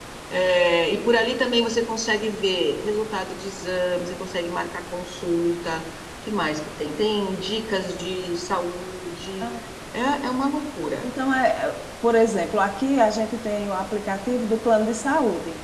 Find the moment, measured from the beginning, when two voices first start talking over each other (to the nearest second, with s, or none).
none